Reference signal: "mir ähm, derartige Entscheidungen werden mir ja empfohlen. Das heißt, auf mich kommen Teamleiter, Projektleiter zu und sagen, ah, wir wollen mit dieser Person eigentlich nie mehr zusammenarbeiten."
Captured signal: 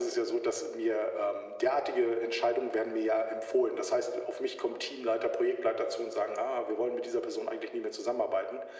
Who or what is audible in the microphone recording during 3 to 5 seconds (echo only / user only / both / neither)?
echo only